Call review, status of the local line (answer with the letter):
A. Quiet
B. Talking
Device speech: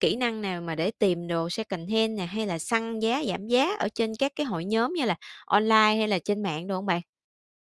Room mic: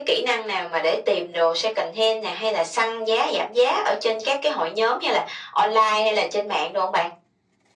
A